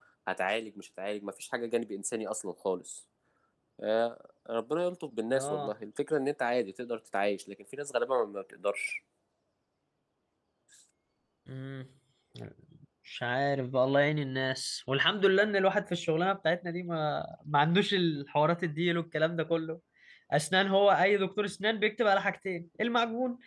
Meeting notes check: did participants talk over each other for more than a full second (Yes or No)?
No